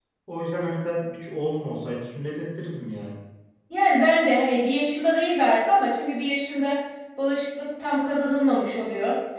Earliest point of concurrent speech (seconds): none

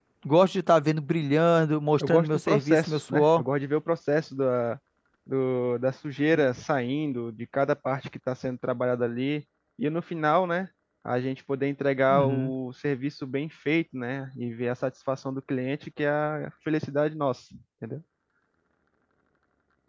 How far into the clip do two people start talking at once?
2.0 s

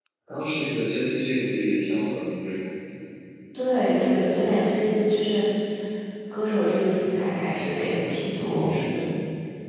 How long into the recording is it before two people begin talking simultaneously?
none

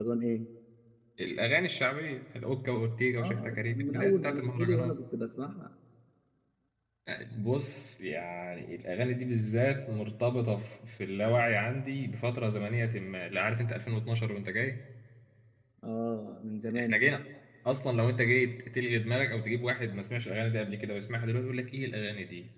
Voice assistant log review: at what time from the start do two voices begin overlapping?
3.2 s

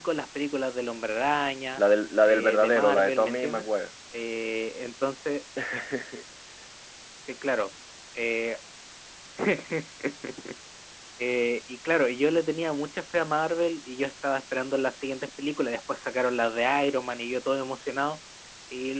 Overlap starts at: 2.3 s

